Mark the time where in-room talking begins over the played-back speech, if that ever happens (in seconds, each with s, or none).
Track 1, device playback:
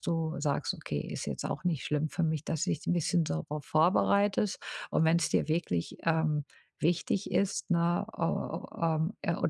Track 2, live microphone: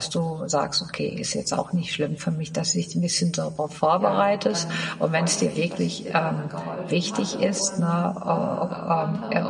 4.0 s